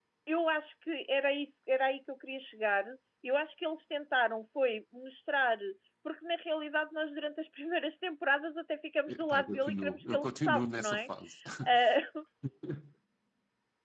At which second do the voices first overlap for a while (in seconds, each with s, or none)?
9.1 s